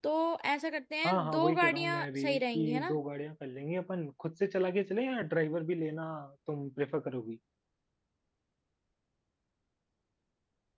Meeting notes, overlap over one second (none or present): present